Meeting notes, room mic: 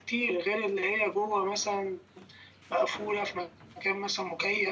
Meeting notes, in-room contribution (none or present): none